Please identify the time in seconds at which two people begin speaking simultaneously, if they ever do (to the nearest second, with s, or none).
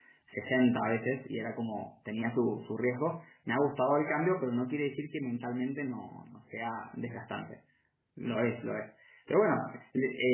none